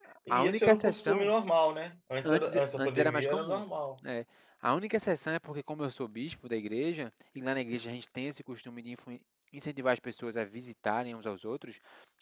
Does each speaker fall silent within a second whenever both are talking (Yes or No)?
No